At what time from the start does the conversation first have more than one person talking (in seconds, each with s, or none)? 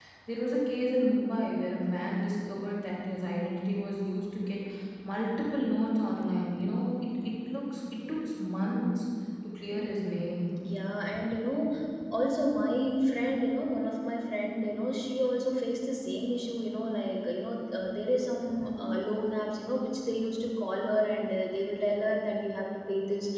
none